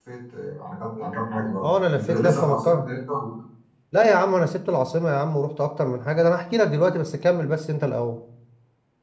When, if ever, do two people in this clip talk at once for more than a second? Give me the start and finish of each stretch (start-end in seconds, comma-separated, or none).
1.6-2.8